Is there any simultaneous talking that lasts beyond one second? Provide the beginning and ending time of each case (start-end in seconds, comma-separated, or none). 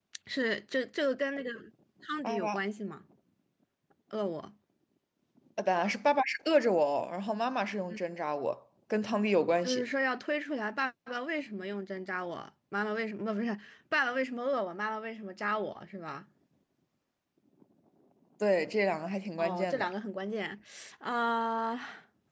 none